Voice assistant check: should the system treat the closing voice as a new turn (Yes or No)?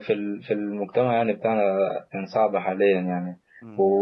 No